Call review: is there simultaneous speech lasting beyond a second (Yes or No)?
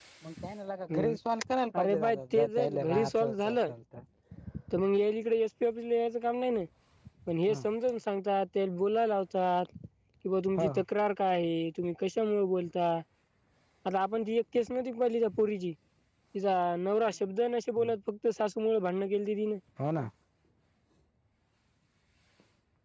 Yes